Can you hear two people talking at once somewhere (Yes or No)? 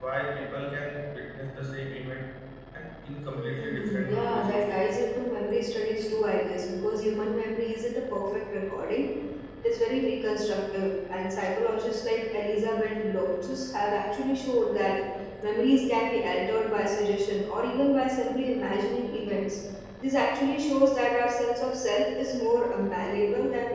Yes